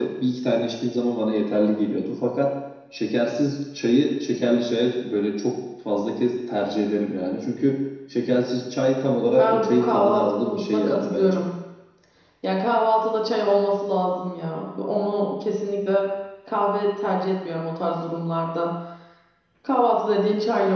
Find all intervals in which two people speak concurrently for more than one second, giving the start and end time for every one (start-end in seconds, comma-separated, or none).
9.4-11.4